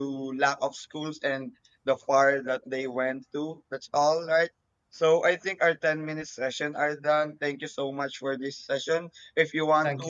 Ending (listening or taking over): listening